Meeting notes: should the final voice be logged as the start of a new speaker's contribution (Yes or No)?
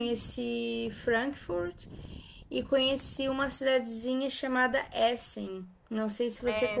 Yes